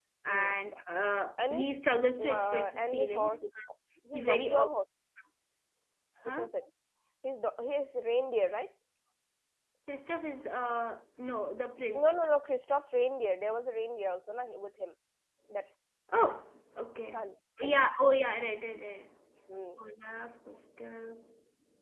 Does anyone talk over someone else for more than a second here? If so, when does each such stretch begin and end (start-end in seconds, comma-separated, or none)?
2.2-3.4